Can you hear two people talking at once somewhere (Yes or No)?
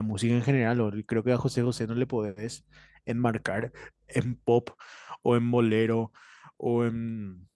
No